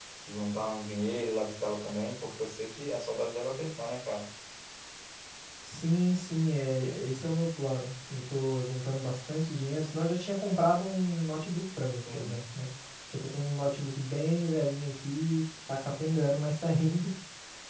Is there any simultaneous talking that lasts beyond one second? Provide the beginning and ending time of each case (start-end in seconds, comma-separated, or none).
none